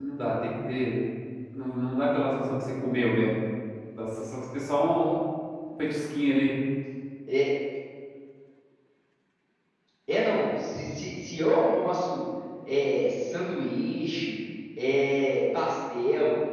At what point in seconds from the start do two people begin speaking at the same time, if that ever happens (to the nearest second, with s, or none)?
none